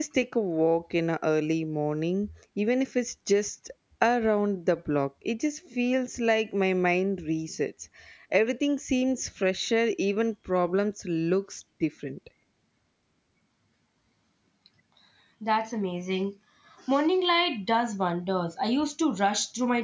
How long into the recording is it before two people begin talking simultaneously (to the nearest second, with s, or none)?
none